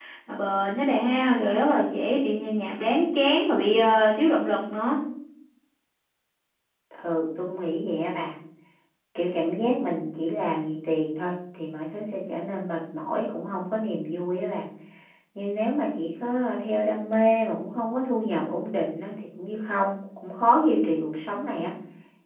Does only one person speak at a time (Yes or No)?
Yes